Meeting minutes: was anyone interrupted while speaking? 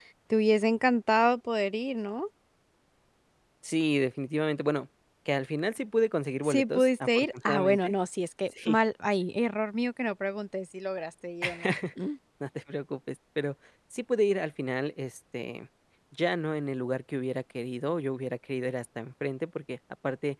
Yes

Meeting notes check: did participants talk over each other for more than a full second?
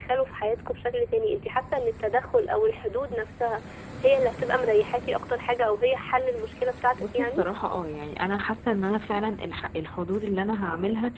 No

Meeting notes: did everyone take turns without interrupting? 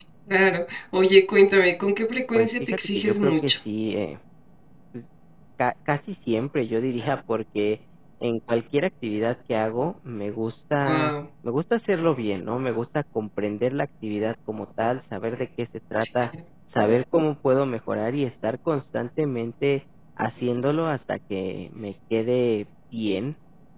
No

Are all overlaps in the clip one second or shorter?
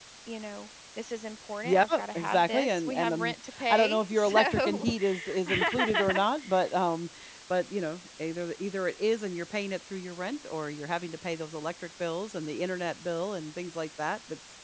No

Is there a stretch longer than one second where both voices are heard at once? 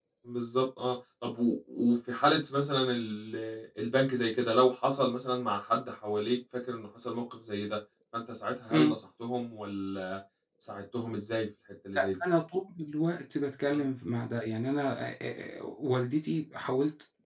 No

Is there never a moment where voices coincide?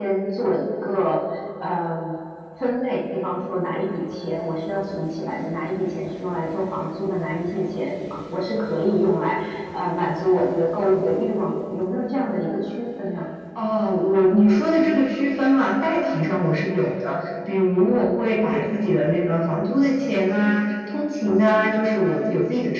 Yes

